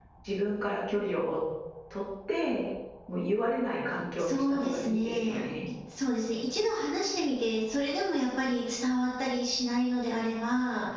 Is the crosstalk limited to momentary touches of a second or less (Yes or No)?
No